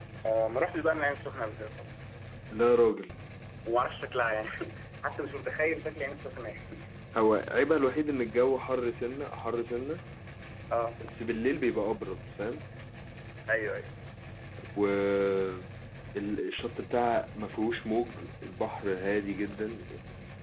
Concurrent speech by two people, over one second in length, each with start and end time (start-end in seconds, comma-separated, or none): none